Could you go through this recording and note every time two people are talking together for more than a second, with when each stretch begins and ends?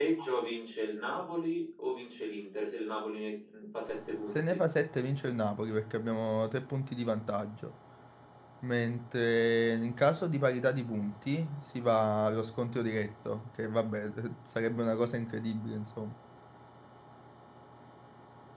none

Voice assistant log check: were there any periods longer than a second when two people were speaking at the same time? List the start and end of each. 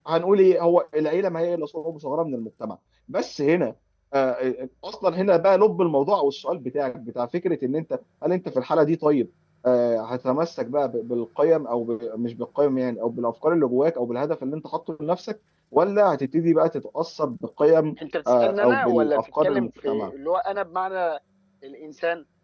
18.3-20.1

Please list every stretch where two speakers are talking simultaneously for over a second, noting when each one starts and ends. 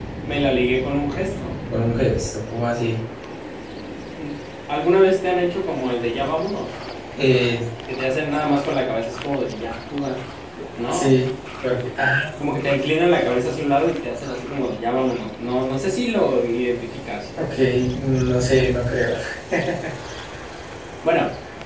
none

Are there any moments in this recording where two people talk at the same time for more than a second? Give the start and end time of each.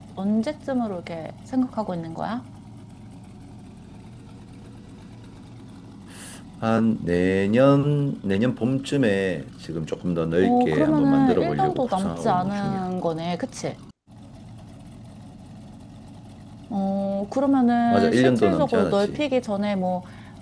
10.4-12.8, 17.9-19.2

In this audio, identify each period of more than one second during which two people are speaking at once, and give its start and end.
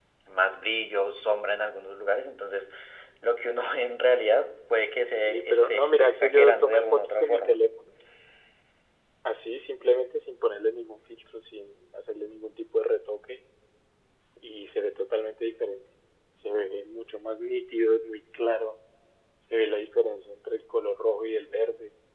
5.1-7.6

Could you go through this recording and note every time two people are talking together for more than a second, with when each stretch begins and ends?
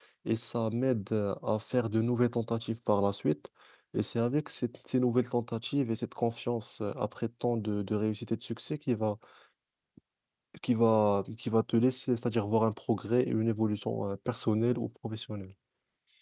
none

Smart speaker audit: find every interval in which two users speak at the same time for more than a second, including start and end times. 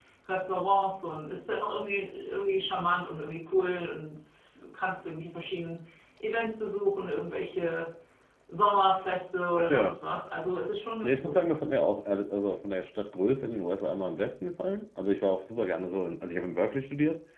none

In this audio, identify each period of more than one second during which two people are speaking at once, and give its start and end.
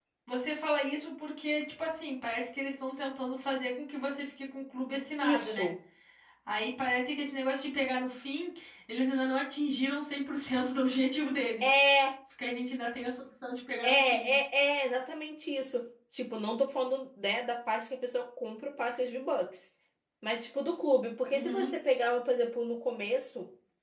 none

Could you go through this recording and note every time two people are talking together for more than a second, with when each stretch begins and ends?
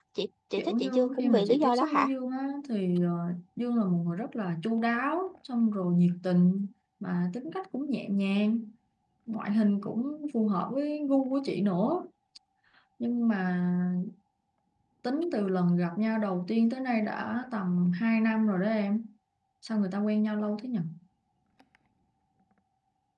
0.6-2.1

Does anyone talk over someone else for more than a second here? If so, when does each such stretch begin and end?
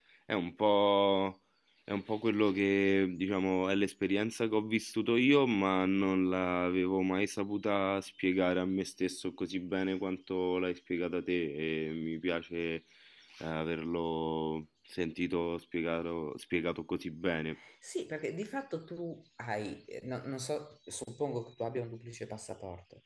none

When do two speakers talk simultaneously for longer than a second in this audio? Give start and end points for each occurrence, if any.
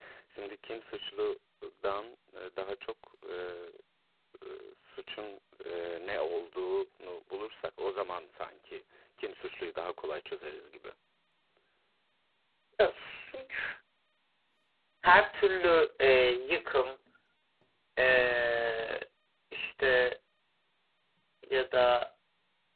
none

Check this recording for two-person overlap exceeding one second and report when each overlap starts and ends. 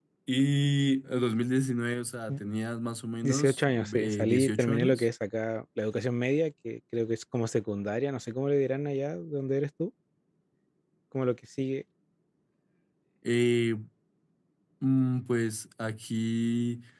3.2-5.1

